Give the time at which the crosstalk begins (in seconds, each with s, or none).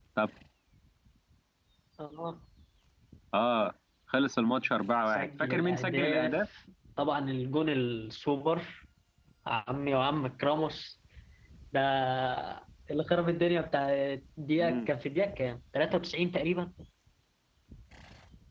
5.1 s